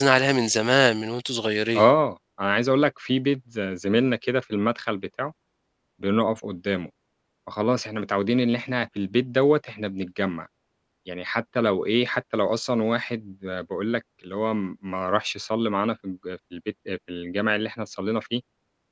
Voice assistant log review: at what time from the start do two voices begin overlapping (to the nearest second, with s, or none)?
none